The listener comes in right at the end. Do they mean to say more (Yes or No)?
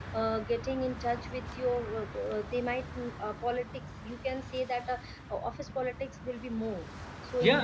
No